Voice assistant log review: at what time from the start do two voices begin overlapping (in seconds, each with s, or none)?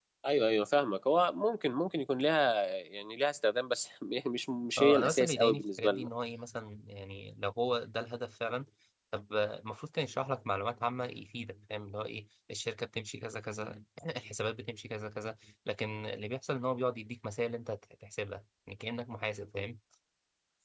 4.8 s